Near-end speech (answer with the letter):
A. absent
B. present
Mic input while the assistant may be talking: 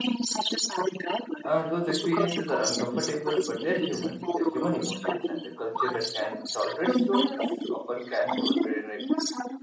B